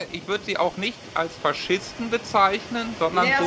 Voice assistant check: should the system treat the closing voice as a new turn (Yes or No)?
Yes